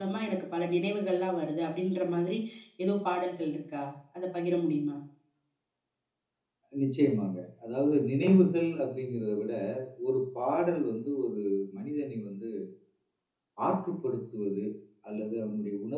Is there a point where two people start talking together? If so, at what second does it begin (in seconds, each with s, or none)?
none